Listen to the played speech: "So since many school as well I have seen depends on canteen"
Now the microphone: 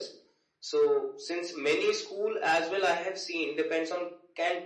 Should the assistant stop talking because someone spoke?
No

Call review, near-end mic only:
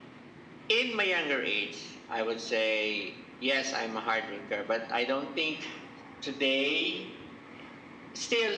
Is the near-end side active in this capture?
No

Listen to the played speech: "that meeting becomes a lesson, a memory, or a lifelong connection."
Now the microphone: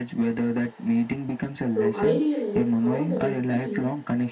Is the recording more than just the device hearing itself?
Yes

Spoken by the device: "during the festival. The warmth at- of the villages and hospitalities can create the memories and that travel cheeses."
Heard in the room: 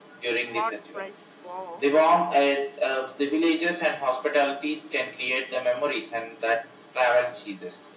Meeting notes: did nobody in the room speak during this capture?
No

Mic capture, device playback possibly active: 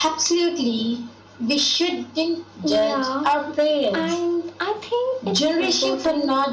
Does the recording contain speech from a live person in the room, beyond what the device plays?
No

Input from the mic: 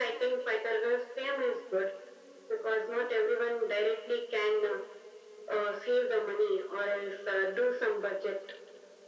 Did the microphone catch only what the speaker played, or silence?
Yes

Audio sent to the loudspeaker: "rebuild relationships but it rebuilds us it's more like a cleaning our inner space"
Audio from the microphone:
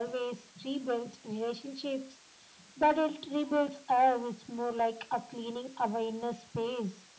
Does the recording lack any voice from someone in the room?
Yes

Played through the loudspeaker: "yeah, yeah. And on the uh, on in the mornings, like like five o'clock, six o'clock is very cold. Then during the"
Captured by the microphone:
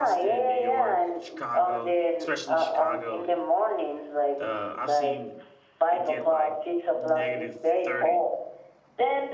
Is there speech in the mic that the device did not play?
Yes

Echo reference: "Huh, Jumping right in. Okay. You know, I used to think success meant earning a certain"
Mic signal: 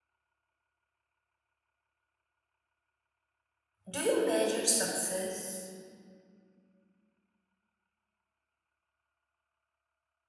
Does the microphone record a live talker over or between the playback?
Yes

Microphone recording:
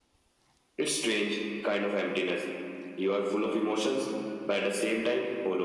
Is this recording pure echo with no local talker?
Yes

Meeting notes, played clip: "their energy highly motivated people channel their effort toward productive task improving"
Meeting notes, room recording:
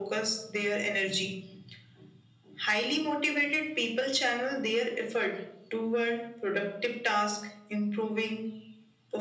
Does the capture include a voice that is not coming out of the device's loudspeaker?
No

